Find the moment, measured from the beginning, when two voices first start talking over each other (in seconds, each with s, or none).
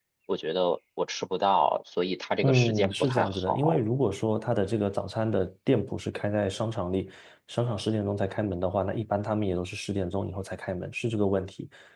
2.4 s